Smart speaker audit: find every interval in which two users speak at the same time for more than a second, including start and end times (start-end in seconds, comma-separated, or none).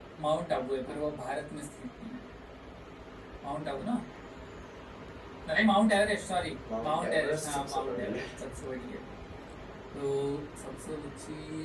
6.8-8.2